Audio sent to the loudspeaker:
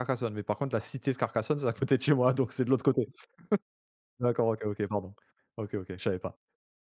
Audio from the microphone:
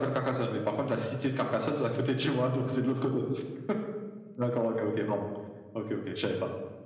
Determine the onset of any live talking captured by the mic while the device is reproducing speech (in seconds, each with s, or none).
none